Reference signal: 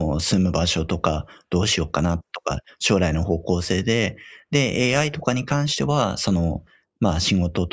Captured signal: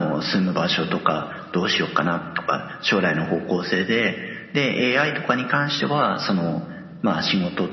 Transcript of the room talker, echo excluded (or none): none